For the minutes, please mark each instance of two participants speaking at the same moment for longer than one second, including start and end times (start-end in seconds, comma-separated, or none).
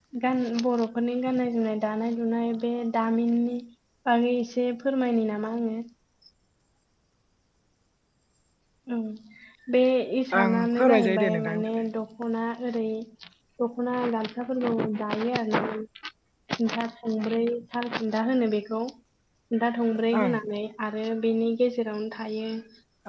10.4-11.7